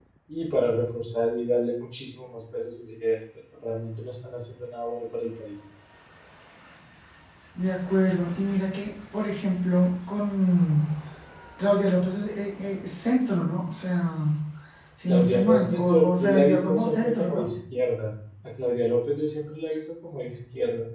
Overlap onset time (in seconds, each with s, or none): 15.1 s